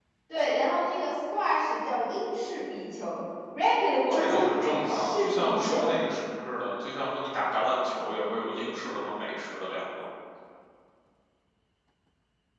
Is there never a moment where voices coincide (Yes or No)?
No